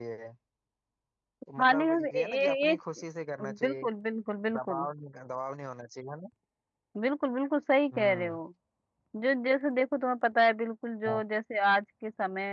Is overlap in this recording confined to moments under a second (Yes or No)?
No